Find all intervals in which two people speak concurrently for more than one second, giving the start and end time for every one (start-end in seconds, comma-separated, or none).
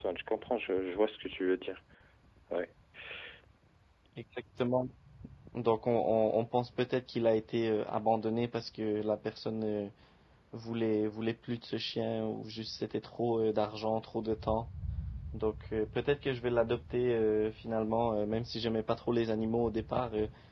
none